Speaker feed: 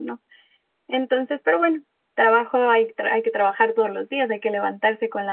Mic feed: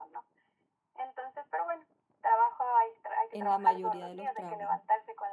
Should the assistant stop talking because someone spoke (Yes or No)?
Yes